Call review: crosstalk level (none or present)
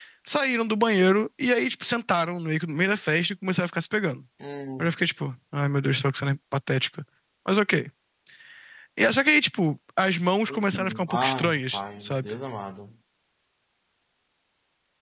present